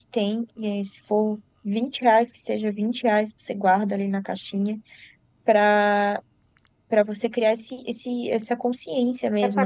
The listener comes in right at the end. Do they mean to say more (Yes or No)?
Yes